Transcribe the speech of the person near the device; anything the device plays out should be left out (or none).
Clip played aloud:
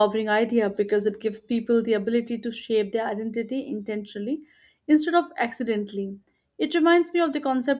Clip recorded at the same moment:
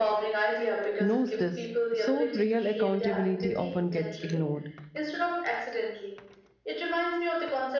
knows this, so real accountability often gets ignored.